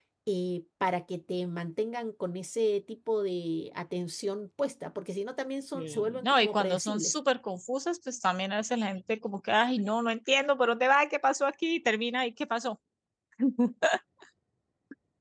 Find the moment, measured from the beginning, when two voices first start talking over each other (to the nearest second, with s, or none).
6 s